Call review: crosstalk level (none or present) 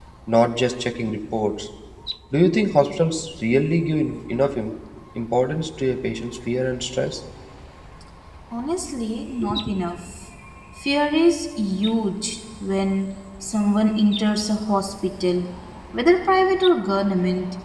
none